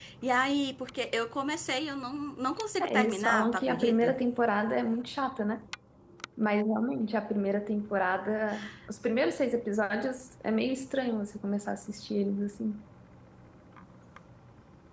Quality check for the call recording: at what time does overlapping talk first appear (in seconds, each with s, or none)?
2.8 s